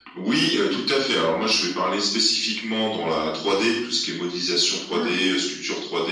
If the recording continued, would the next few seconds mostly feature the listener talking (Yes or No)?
No